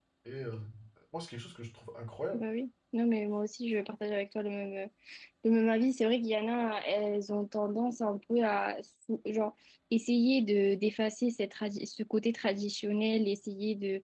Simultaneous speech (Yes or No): No